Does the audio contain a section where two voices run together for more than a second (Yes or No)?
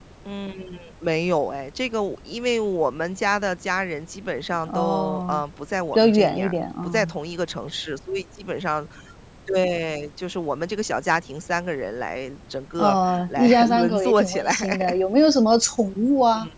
Yes